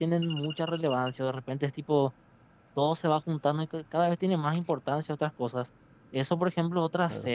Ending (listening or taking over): listening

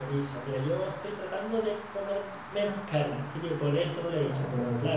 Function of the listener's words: listening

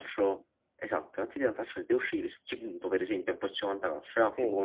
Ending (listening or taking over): listening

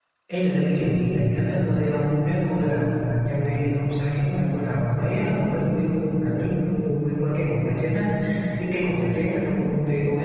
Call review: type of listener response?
listening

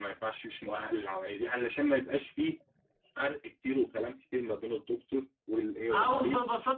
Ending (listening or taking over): taking over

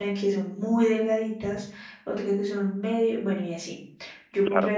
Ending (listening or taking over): listening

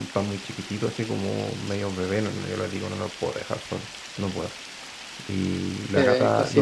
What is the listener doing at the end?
listening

